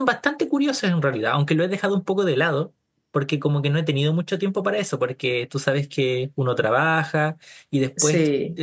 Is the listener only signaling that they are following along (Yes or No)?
Yes